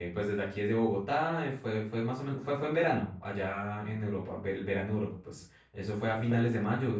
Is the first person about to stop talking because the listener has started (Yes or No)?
No